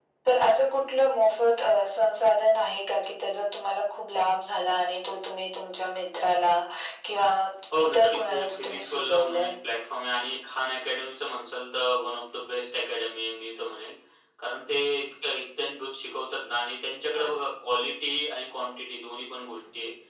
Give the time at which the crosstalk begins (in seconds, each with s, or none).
7.8 s